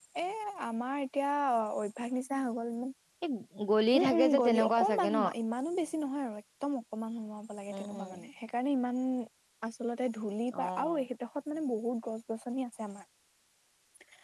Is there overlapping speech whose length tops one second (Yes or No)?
Yes